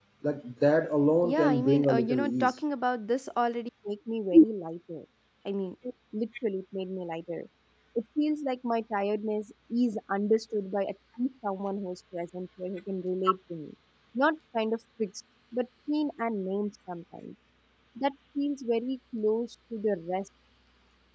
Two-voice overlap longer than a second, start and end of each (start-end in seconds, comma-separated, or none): 1.2-2.5